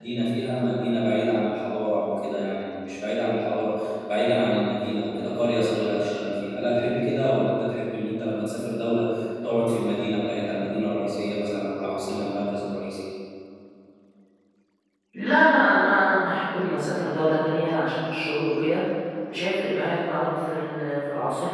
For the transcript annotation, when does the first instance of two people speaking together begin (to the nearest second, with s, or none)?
none